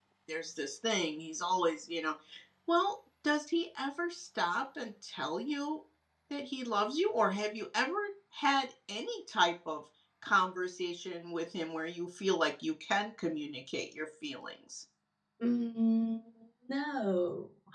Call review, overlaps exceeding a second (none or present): none